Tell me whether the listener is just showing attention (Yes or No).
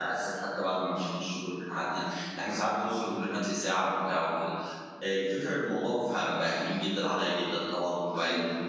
Yes